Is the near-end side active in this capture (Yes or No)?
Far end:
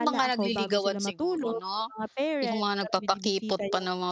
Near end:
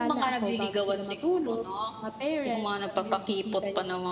Yes